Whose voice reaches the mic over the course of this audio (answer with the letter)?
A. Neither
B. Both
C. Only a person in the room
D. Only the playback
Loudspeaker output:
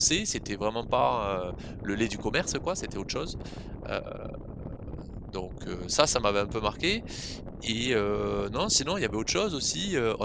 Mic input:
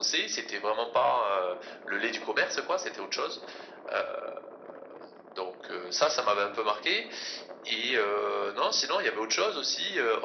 D